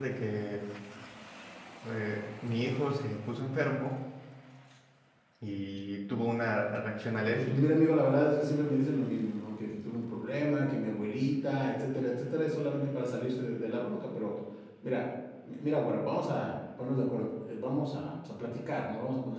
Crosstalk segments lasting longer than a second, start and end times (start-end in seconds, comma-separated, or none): none